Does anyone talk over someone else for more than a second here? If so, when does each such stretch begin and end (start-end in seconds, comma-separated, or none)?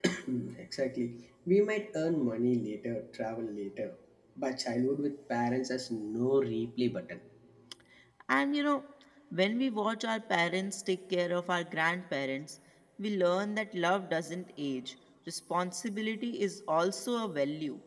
none